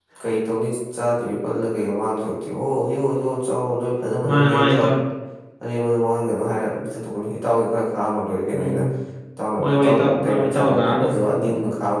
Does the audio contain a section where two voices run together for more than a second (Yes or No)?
Yes